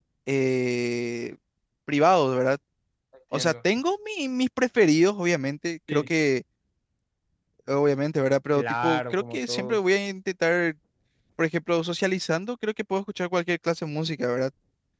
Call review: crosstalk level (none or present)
present